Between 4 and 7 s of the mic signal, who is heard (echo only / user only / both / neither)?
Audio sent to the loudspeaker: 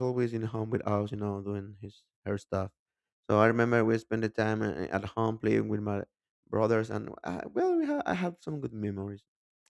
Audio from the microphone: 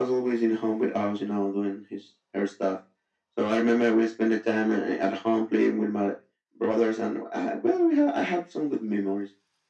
echo only